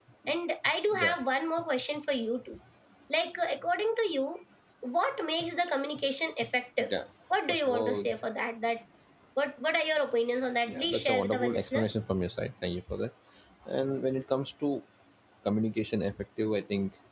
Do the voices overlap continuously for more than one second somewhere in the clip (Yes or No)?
Yes